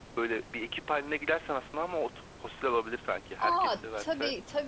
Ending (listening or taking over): taking over